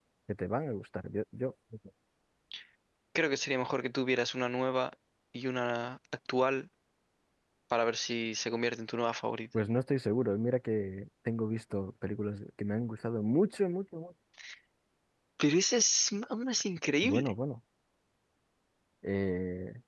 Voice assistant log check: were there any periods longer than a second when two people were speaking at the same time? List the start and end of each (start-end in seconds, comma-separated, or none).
none